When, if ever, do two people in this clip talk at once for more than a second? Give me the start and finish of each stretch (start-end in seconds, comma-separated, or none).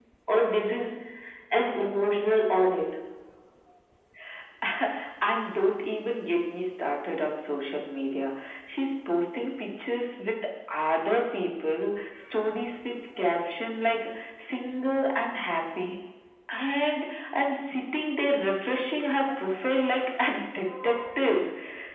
none